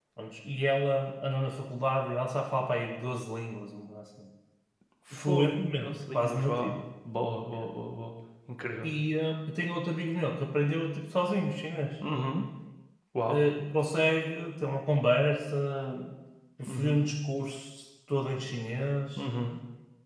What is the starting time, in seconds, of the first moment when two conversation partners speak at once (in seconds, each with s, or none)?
5.2 s